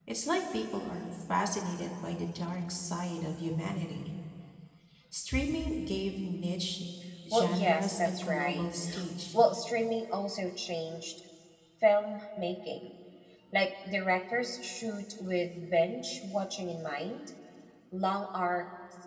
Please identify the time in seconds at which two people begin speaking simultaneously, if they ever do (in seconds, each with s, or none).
7.3 s